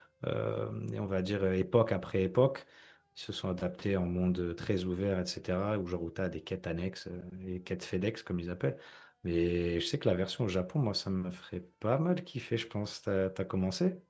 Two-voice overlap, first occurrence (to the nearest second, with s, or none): none